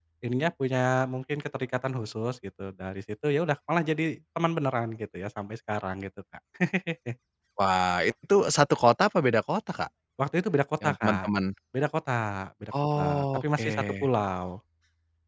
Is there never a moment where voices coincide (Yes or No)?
No